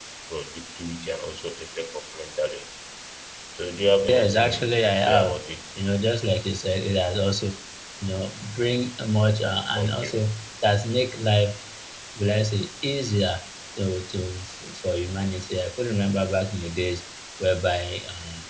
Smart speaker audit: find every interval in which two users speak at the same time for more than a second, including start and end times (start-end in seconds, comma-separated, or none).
4.1-5.4